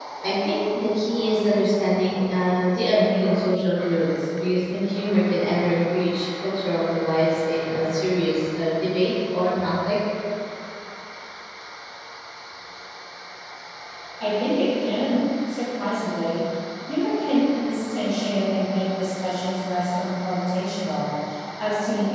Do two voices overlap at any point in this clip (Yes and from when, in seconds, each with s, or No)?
No